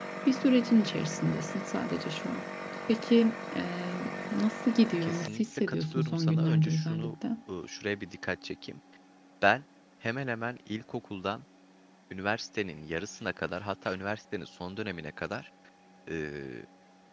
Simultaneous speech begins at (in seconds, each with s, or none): 5.0 s